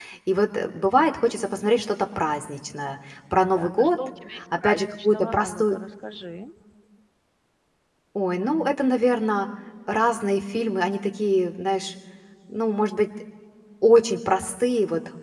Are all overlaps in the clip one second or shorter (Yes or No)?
No